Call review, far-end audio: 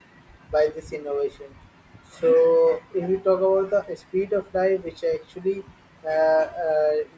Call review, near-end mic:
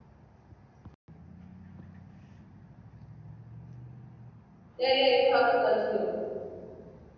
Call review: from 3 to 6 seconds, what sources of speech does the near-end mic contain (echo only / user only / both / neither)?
user only